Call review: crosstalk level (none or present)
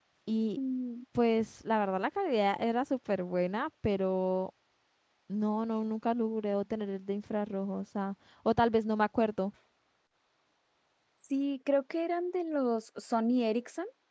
none